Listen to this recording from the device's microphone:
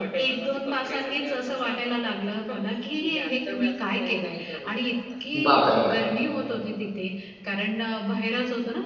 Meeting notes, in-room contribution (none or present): present